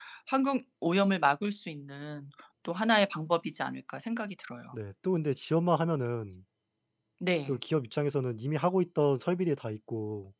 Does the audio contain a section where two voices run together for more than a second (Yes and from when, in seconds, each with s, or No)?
No